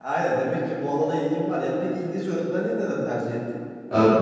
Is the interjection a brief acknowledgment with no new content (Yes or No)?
No